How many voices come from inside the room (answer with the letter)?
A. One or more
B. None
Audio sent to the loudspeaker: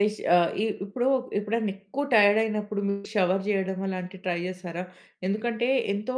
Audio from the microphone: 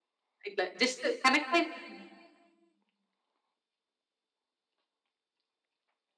A